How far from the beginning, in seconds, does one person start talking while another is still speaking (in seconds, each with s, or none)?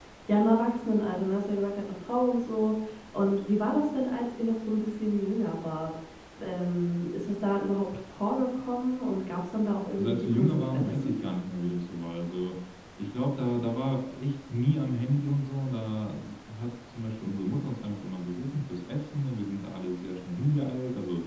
9.9 s